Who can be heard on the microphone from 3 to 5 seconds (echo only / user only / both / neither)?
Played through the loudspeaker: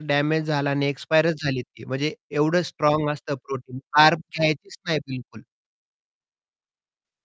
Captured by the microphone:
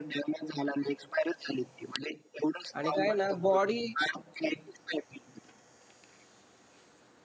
both